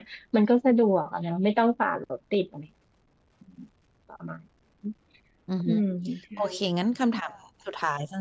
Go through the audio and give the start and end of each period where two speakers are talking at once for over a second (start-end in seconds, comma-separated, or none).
none